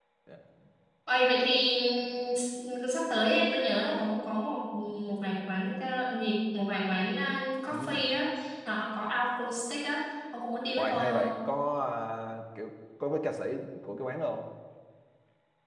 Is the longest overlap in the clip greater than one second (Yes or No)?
No